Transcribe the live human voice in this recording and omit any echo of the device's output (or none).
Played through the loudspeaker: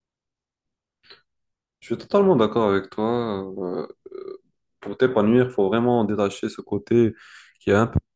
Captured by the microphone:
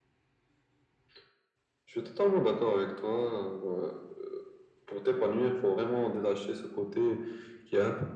none